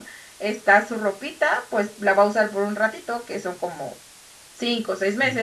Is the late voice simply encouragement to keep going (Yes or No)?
Yes